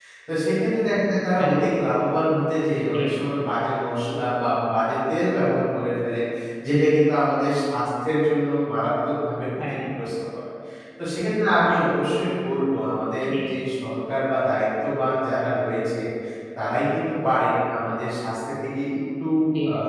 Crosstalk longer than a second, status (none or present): none